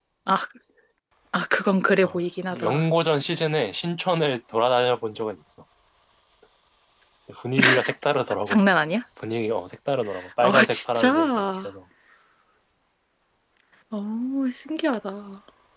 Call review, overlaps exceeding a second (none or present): present